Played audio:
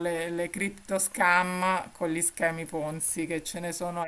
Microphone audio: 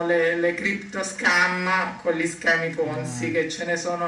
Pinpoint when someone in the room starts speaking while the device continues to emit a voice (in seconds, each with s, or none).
2.8 s